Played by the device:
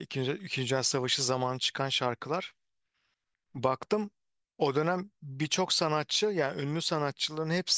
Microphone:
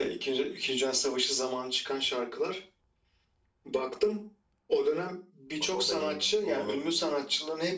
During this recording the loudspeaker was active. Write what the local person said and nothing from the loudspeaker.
Bak o da iyiymiş. Onu da.

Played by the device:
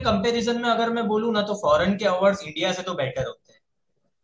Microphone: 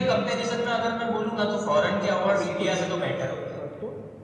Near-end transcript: हाँ बिल्कुल मैं भी मानता हूँ इस बात को

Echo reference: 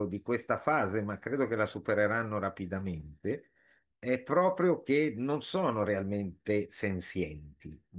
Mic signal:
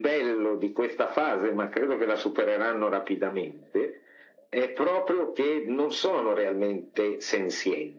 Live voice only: none

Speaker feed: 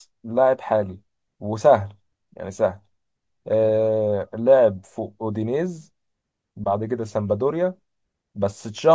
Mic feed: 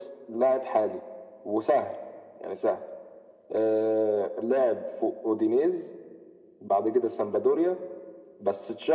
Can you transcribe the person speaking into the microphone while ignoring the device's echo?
none

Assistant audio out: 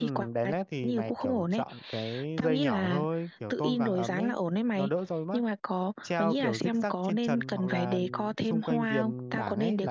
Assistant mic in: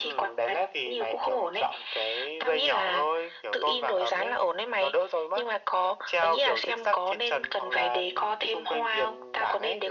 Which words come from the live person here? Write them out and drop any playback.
none

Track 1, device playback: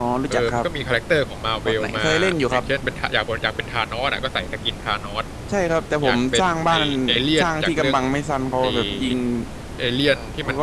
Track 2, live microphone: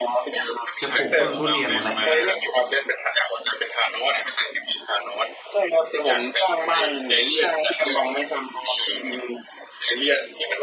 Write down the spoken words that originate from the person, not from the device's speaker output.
จะปลูกต้นทุเรียนครับ

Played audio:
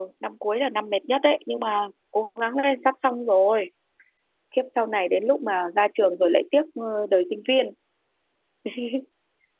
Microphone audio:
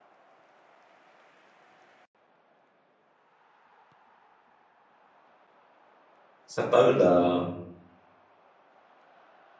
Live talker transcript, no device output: sắp tới là

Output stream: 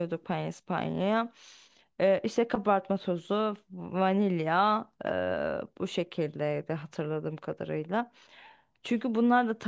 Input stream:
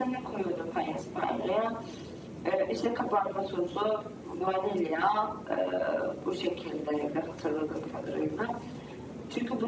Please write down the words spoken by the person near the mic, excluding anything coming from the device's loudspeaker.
none

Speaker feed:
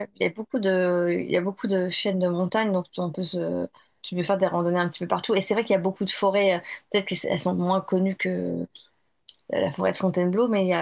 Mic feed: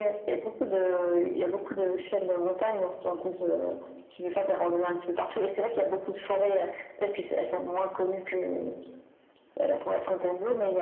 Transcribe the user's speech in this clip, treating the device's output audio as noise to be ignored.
none

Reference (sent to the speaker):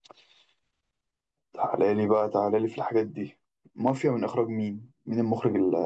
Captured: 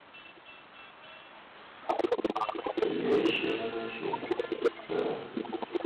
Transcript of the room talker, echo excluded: اللي شام أشوف أه

